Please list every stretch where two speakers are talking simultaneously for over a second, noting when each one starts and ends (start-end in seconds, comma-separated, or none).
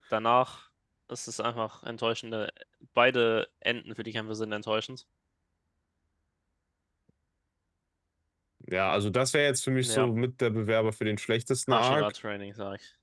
none